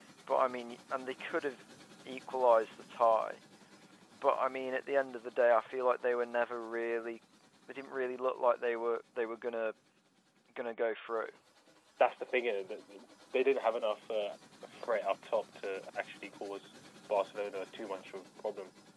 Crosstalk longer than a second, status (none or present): none